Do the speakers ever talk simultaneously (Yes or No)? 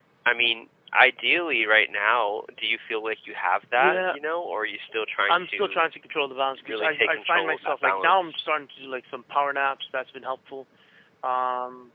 Yes